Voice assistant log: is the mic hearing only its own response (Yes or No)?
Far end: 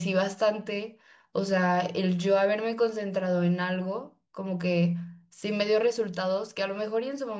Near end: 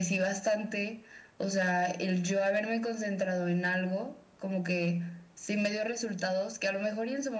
Yes